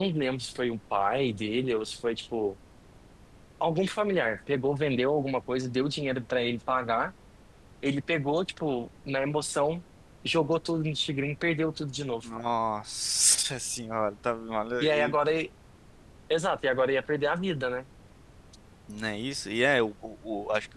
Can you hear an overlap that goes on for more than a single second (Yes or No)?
No